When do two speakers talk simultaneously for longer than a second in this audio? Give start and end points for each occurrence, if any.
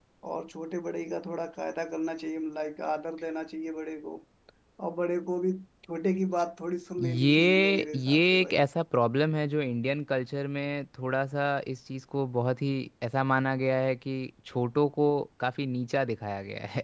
7.0-8.6

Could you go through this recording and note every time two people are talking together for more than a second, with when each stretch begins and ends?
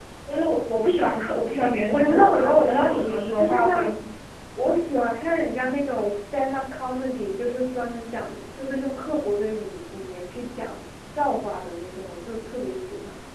1.8-3.9

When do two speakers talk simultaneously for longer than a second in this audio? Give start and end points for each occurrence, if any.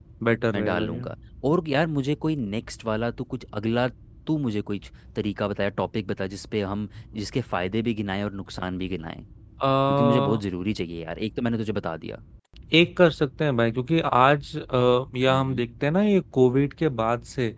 none

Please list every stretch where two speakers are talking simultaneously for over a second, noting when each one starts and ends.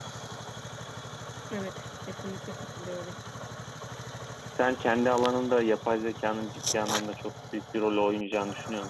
none

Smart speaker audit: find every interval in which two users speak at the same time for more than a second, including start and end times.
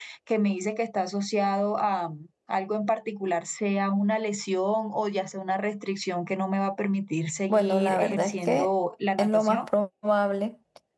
7.5-8.7

